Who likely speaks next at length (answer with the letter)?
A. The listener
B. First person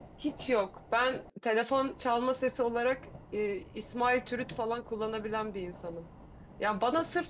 B